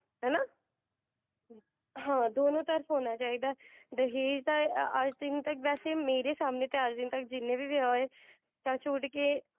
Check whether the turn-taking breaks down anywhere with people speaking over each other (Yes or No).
No